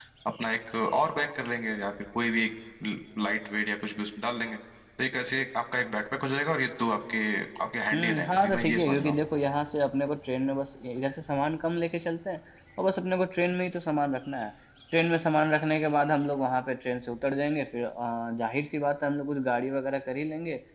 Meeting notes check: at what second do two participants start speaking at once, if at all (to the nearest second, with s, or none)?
8 s